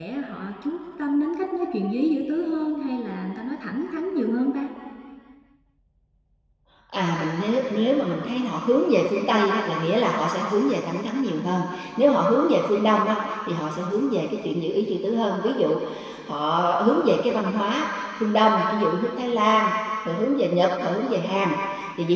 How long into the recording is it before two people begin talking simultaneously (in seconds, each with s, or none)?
none